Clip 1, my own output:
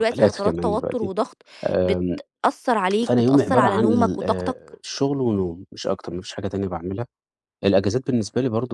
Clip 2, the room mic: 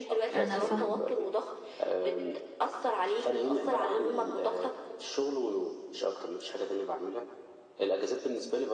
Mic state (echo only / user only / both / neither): both